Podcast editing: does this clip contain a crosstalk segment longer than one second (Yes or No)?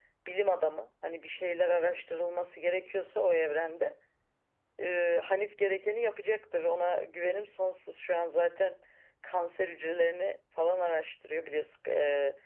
No